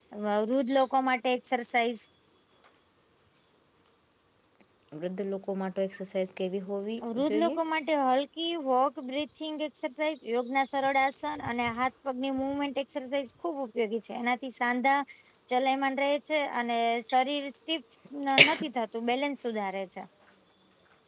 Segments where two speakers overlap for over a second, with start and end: none

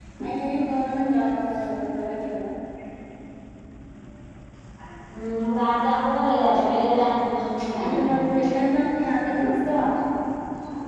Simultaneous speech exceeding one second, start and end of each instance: none

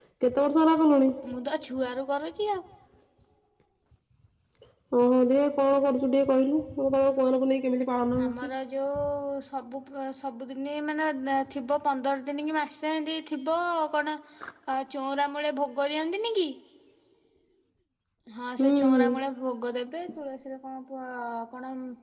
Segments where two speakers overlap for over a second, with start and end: none

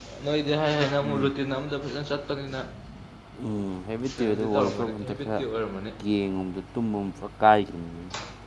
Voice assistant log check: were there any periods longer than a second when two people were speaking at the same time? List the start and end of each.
4.1-5.4

